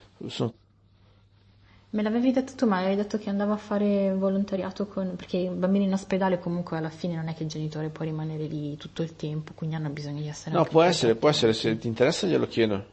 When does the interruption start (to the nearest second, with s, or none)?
11 s